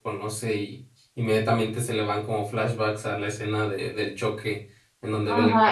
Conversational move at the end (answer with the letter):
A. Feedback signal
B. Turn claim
B